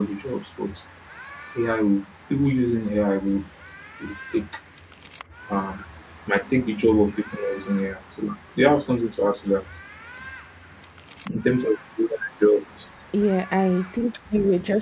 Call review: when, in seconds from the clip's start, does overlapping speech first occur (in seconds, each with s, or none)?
none